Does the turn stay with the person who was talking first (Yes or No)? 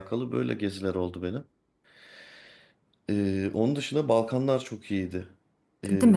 No